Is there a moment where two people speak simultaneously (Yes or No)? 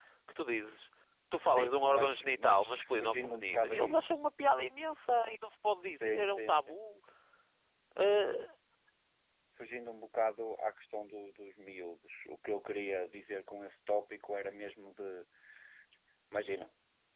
Yes